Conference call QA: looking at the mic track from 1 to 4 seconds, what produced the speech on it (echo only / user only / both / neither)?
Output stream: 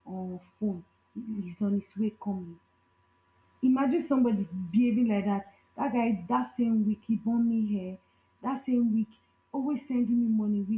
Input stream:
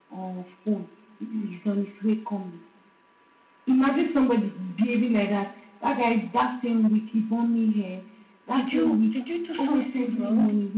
echo only